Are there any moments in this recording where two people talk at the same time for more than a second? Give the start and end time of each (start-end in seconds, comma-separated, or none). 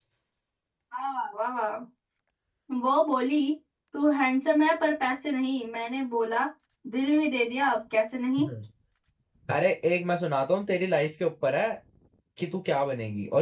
none